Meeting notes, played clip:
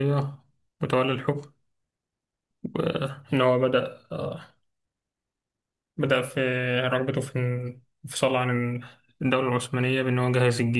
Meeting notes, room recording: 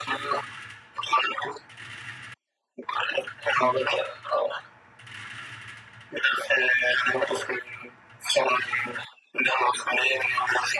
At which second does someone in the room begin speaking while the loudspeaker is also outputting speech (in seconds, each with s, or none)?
none